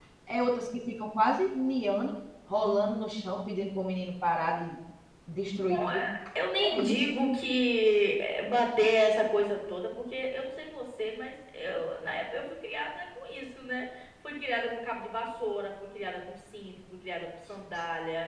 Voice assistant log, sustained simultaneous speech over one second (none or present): none